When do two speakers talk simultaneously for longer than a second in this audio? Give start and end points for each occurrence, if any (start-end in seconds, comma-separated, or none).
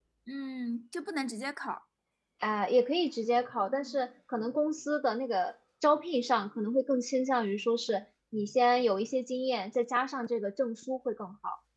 none